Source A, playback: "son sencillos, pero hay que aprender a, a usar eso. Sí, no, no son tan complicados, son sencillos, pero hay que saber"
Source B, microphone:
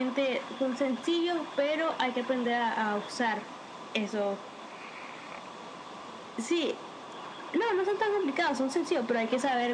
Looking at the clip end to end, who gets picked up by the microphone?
echo only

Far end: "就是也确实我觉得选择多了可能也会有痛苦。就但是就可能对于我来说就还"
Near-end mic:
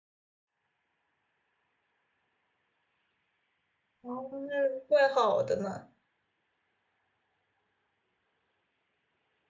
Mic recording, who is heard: user only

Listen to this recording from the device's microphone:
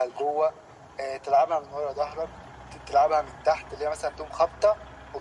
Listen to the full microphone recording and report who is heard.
echo only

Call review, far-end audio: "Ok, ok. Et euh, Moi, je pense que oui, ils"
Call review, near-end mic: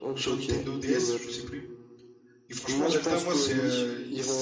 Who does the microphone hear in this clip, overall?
both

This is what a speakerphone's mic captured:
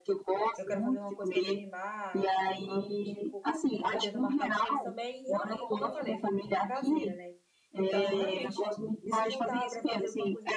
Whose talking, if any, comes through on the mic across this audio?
both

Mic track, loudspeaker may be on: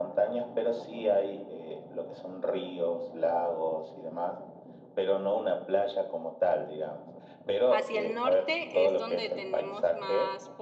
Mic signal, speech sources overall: both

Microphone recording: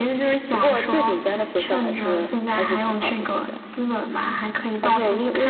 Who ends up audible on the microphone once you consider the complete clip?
echo only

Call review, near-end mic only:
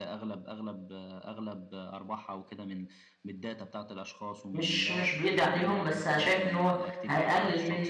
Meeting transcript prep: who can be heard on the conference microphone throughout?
both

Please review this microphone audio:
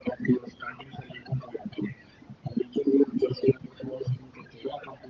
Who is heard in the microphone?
echo only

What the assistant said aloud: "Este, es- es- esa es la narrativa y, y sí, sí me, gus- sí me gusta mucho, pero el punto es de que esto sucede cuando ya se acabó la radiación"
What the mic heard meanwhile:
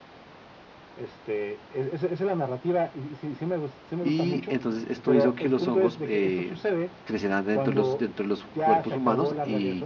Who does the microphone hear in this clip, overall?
both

